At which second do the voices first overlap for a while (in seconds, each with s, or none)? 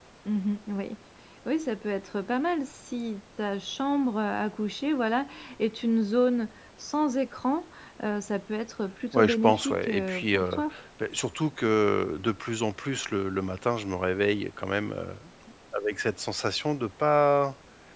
9.1 s